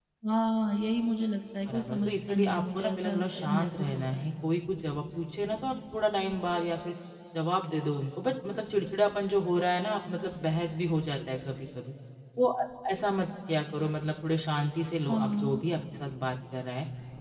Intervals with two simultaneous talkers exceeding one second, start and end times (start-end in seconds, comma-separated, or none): 1.7-4.3